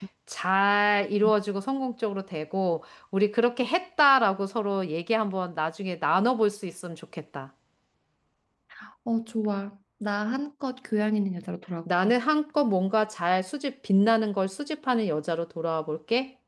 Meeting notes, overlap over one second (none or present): none